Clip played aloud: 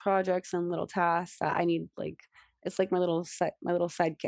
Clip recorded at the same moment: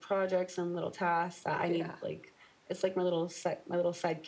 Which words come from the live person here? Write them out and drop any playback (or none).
Yeah.